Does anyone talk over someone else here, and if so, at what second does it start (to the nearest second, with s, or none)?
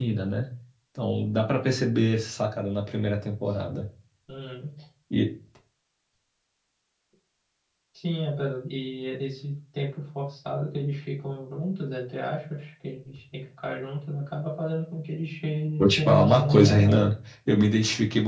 16 s